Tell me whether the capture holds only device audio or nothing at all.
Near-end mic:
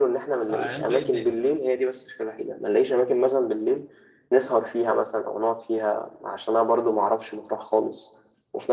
No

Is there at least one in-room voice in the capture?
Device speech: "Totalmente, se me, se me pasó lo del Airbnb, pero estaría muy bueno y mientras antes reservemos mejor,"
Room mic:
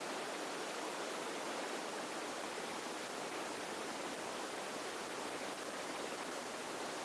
No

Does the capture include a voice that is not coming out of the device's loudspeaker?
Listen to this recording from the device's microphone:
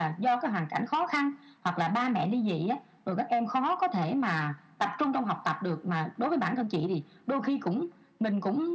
No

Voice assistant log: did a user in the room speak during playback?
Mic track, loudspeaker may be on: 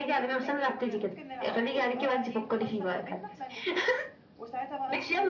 Yes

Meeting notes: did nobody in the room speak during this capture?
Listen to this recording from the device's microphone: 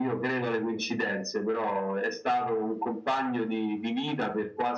Yes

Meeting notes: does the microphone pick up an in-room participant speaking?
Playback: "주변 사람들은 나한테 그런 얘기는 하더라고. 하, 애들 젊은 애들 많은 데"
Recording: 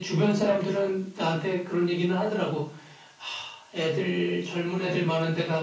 No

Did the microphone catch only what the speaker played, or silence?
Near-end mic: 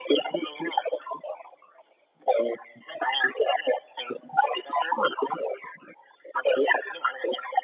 Yes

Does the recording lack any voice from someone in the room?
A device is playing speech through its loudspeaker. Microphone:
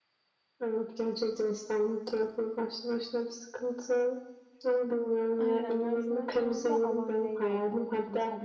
No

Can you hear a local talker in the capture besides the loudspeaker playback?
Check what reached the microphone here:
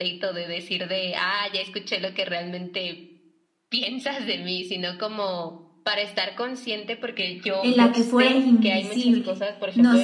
Yes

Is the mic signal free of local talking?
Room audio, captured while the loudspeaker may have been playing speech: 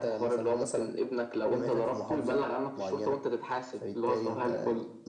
Yes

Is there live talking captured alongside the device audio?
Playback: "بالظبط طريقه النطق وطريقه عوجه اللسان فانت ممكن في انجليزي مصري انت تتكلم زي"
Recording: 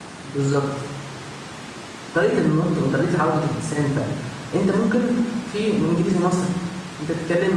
No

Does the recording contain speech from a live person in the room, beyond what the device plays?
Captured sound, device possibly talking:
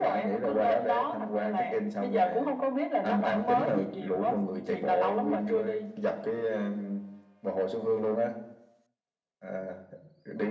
No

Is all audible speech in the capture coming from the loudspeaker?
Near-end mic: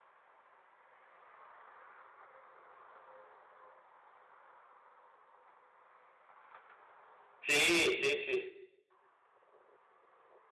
No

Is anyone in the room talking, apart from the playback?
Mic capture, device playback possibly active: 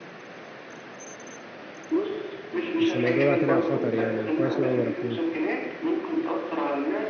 Yes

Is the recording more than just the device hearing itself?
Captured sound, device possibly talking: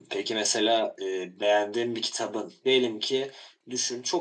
No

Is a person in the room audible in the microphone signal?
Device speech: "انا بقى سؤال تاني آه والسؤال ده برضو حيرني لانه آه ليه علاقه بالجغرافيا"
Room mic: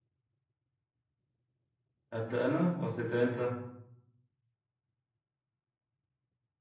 Yes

